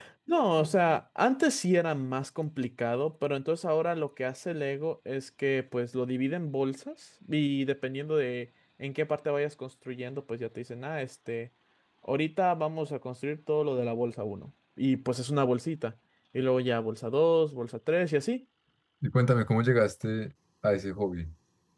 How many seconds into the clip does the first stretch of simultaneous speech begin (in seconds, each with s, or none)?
none